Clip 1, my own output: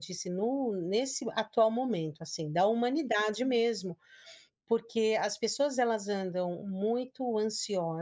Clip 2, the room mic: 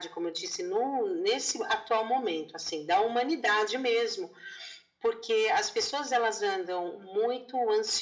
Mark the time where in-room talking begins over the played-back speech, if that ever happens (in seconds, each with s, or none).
none